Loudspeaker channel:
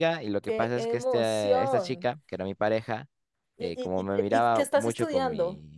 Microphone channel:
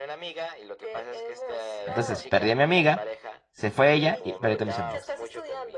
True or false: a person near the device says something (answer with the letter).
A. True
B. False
A